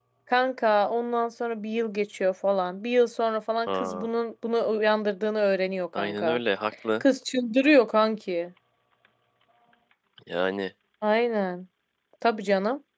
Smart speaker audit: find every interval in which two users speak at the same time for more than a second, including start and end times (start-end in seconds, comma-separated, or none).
none